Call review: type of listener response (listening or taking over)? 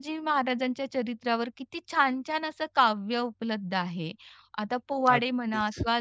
listening